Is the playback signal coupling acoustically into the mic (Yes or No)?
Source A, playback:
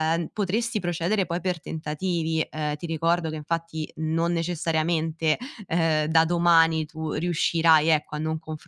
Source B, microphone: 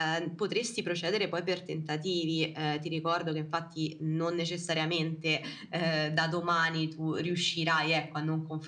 Yes